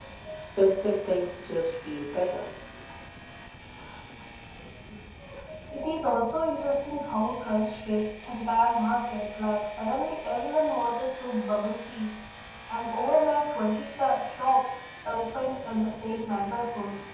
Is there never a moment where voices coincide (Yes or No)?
Yes